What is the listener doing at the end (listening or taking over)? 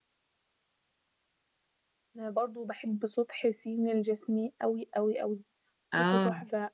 listening